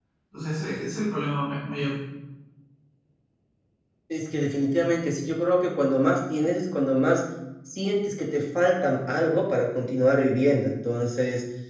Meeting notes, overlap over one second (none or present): none